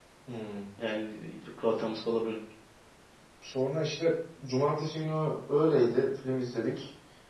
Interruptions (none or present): none